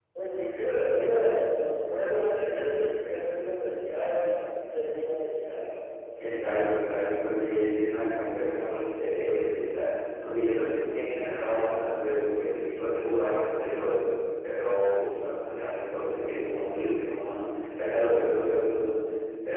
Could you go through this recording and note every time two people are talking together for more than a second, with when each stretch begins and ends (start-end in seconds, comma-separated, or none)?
none